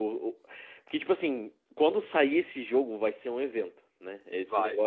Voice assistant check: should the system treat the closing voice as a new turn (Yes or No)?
No